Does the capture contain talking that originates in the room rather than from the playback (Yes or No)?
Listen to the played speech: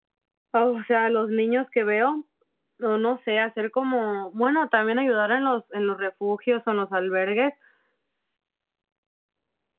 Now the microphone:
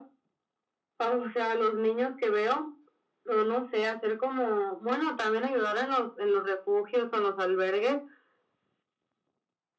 No